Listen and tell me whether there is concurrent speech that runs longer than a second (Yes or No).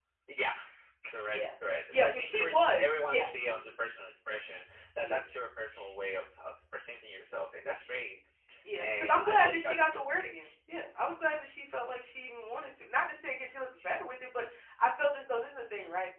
Yes